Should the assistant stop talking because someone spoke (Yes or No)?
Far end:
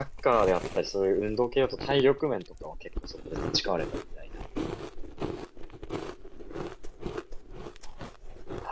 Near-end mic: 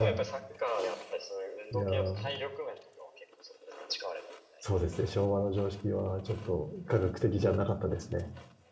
Yes